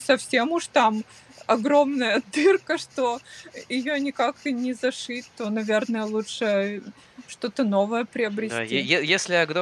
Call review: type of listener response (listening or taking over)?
taking over